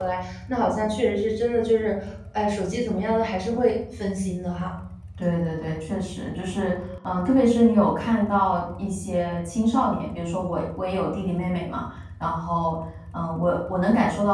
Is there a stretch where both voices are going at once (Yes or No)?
No